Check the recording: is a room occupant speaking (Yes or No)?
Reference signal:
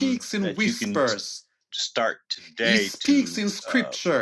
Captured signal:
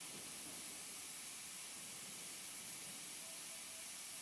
No